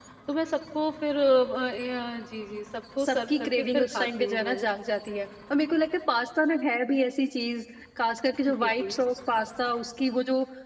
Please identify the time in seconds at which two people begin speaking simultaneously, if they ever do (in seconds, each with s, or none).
3.0 s